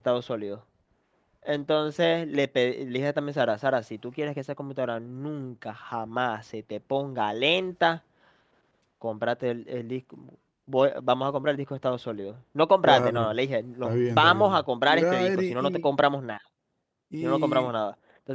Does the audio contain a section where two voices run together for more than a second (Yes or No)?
Yes